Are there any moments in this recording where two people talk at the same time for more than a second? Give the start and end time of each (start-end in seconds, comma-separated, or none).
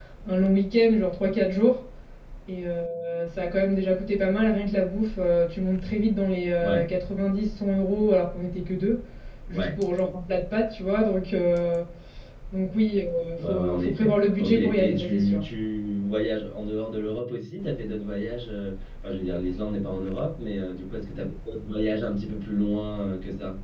13.4-15.4